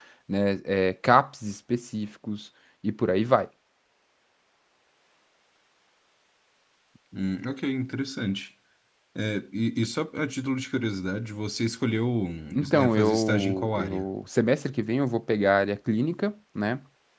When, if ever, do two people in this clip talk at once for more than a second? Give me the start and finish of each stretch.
12.7-14.1

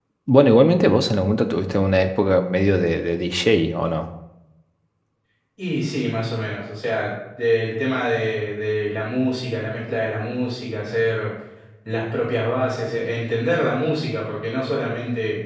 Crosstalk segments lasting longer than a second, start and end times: none

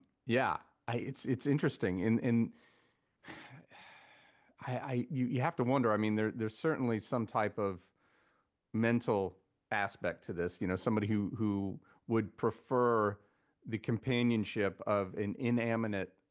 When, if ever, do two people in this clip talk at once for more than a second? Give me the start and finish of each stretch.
none

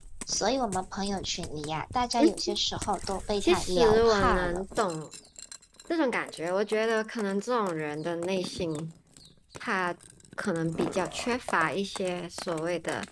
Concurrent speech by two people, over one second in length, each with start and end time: 3.4-4.6

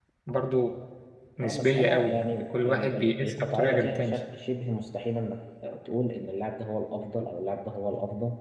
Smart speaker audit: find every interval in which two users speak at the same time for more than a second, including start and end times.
1.4-4.2

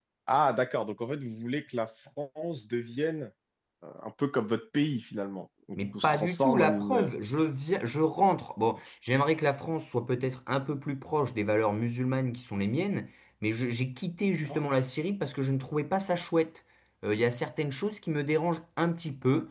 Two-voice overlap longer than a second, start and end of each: 5.8-7.1

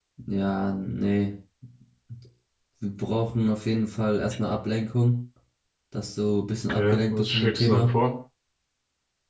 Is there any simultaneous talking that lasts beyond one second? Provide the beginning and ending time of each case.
6.7-7.9

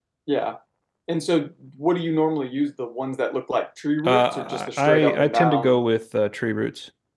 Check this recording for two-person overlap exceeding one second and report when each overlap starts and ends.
4.0-5.8

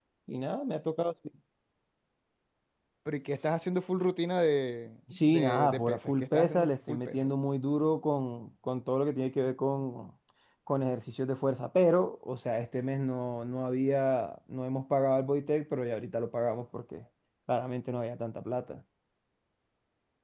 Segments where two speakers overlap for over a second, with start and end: 5.2-7.3

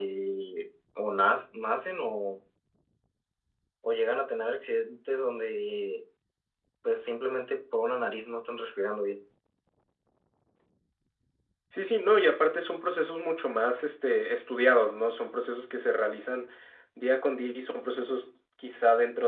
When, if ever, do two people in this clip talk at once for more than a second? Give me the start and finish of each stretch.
none

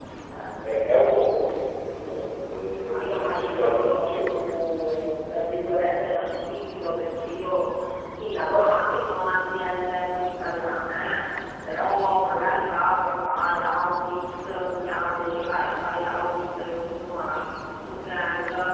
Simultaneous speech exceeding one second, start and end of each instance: 2.9-4.3

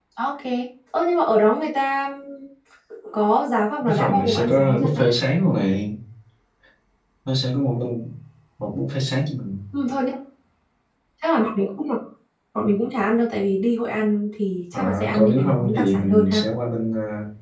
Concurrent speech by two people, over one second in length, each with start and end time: 3.8-5.0, 14.7-16.4

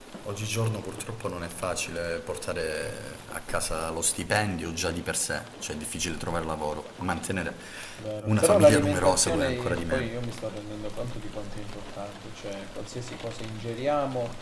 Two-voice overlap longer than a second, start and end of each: 8.2-10.2

